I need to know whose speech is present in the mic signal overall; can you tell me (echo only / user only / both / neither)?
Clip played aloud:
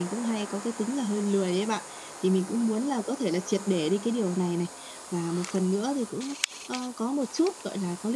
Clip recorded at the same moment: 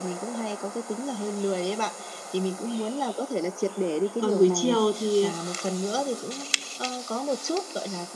both